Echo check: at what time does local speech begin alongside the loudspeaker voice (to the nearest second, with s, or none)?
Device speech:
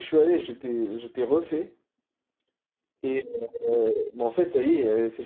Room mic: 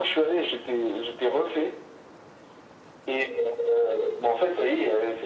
none